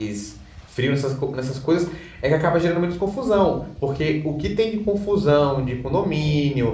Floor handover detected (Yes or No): No